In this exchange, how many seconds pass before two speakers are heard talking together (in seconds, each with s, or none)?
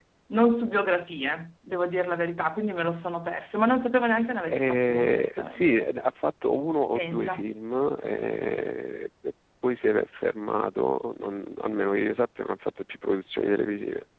4.5 s